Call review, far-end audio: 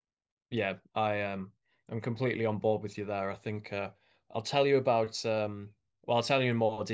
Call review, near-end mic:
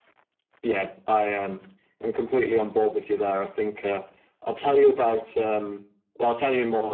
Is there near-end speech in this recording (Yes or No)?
No